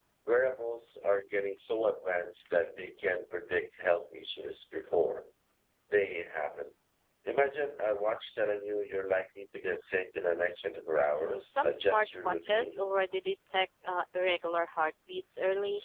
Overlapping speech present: Yes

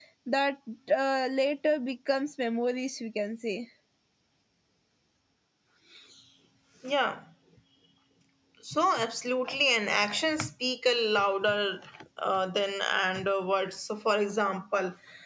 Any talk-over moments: No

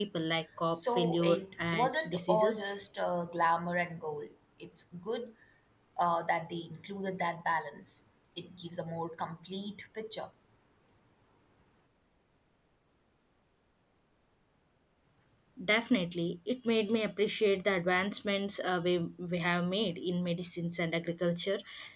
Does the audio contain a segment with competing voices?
Yes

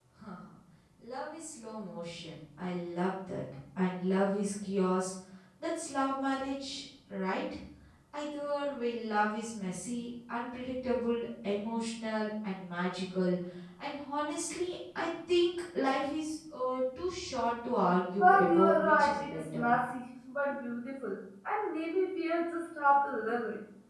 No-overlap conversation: No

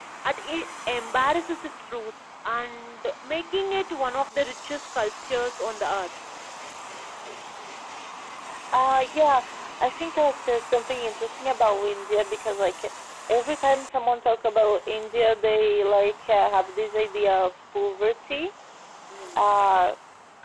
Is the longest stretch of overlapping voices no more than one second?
Yes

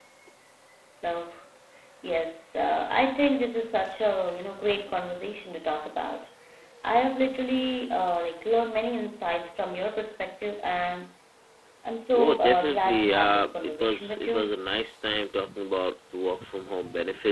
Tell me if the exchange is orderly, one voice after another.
No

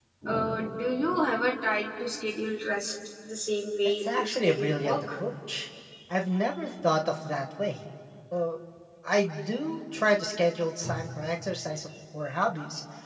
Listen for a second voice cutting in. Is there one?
Yes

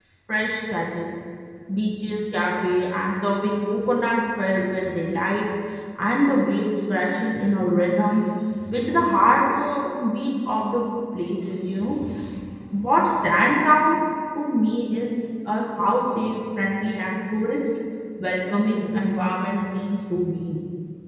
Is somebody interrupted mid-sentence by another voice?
No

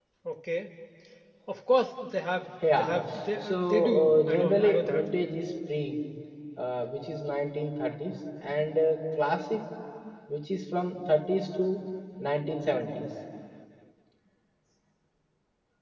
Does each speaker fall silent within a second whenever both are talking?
No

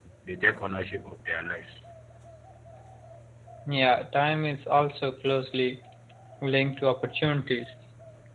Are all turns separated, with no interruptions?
Yes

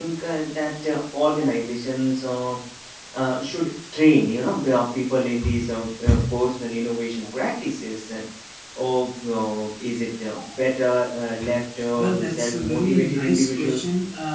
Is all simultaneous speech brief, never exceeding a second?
No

